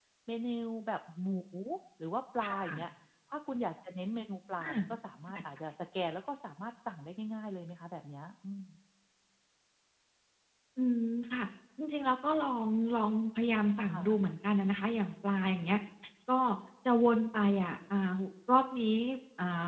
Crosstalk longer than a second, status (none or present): none